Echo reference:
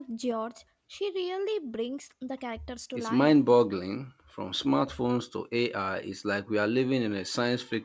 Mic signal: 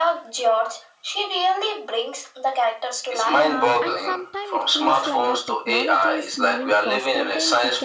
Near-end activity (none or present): present